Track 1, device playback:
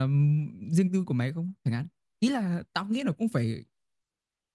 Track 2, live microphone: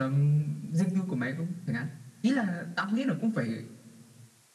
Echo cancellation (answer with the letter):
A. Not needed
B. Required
B